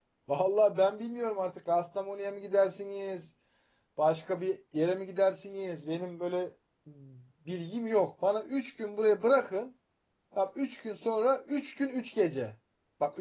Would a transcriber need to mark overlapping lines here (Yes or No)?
No